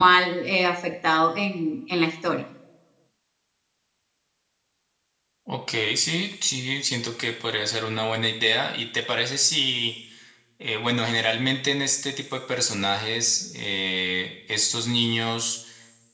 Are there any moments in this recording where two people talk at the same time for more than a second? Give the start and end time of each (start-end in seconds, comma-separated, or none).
none